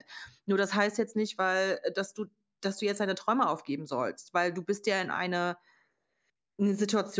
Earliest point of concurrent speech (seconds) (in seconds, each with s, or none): none